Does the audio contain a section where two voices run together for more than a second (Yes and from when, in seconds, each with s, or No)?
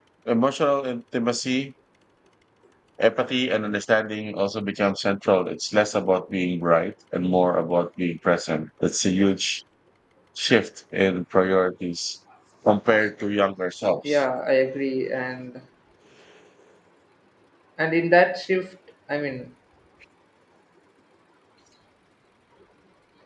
No